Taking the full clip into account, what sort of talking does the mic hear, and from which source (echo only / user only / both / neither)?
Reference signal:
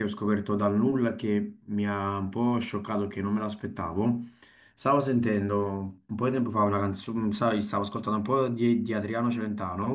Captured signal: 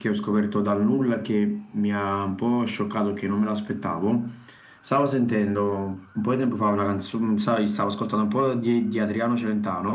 echo only